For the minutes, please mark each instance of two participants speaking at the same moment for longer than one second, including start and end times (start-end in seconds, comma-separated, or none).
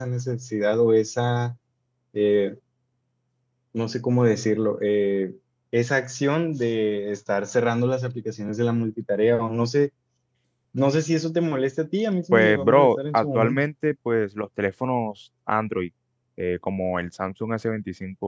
12.3-13.6